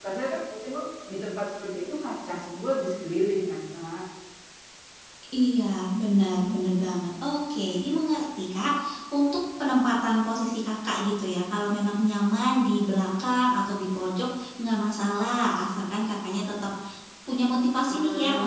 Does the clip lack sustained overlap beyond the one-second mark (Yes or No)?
Yes